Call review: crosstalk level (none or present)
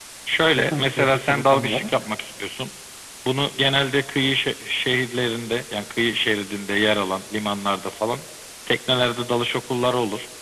present